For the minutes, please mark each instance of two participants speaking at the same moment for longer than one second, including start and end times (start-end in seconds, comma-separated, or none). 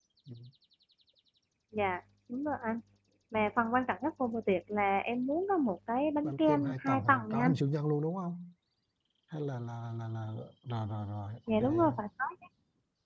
6.2-7.5